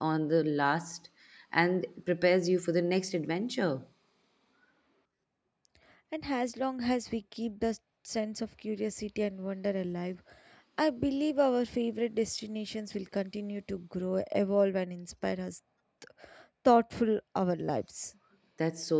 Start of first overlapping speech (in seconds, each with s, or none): none